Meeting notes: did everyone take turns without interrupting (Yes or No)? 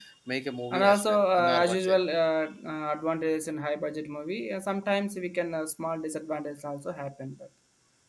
No